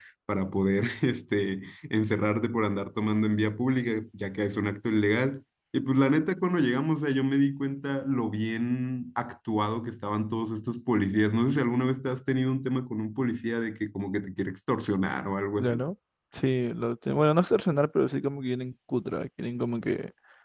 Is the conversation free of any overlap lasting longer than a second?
Yes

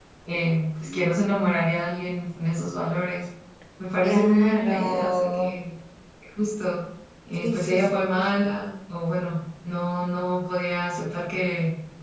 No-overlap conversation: No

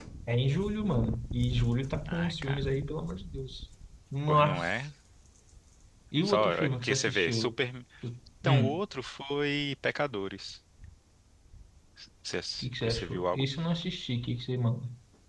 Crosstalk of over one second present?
Yes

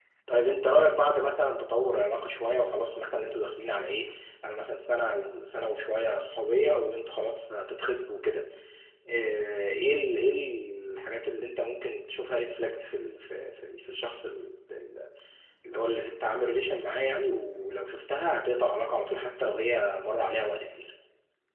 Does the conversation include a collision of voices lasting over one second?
No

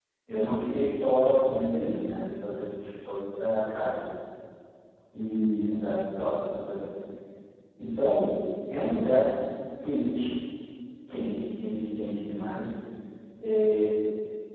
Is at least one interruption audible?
No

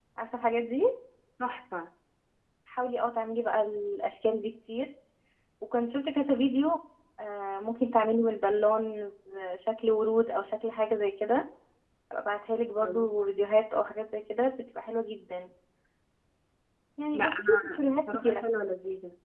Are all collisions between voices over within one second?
No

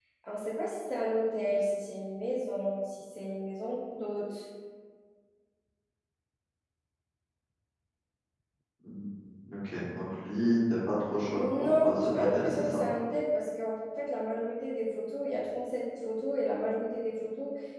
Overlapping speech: Yes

